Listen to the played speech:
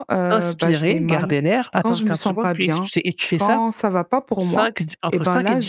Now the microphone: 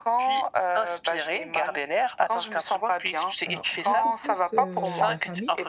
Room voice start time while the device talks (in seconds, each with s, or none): 3.4 s